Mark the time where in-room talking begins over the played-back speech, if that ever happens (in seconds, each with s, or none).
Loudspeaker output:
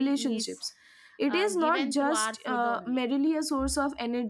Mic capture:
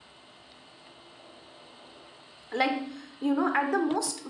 2.5 s